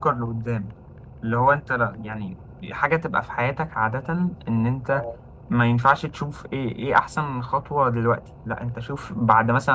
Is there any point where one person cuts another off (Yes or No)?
No